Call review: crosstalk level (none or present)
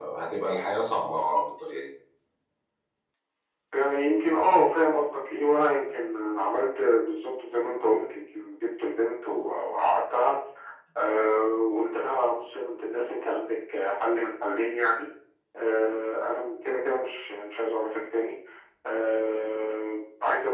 none